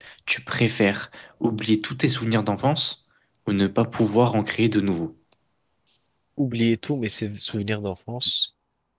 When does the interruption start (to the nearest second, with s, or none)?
none